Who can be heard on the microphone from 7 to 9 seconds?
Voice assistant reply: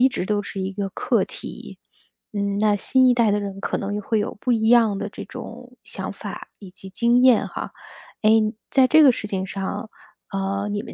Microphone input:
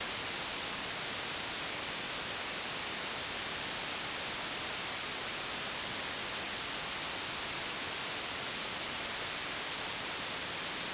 neither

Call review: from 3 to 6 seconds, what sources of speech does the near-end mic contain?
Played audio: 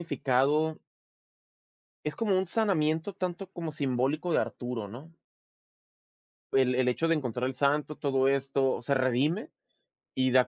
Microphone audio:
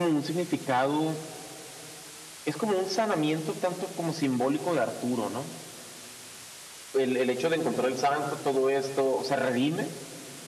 echo only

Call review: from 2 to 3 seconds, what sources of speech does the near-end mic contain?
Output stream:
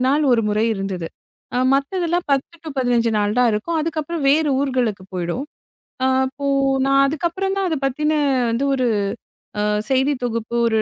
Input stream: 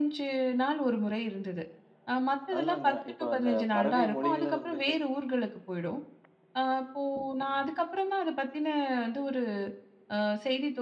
both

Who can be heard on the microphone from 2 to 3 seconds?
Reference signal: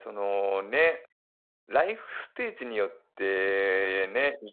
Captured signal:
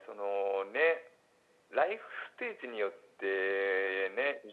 echo only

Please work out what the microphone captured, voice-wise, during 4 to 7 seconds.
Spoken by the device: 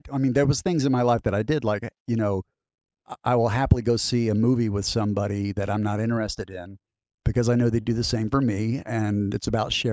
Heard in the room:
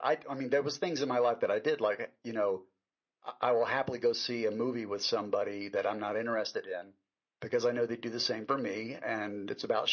echo only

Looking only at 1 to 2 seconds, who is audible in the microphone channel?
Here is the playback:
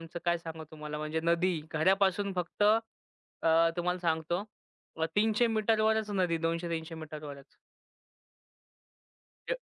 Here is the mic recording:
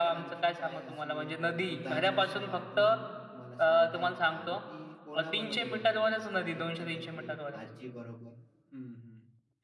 both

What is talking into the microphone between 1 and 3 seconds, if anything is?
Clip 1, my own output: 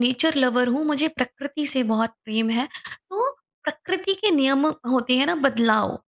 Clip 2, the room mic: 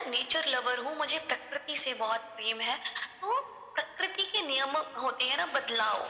echo only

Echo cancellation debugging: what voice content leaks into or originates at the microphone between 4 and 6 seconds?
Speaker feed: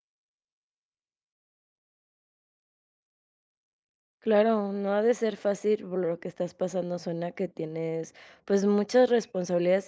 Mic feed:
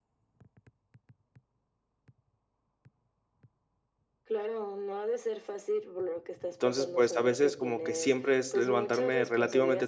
echo only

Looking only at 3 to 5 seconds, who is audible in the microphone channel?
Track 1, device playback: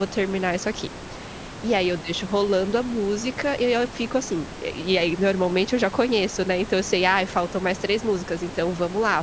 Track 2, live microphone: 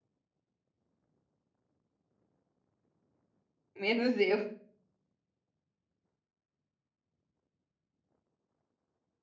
user only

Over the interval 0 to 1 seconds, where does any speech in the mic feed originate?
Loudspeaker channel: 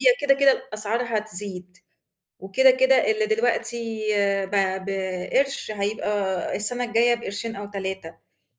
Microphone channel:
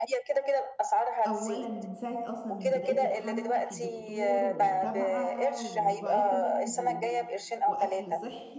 echo only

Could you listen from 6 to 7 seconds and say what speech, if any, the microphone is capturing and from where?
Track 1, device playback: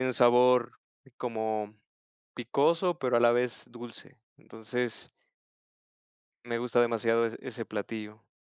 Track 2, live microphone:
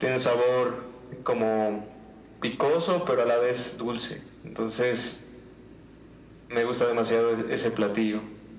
echo only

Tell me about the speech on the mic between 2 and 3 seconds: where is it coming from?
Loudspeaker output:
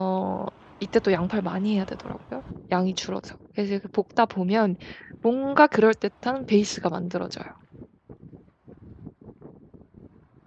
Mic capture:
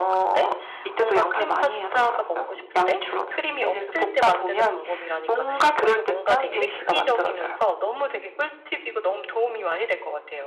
both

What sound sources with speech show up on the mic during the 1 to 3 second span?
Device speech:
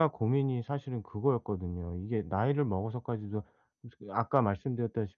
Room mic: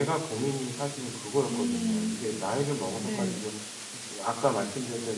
both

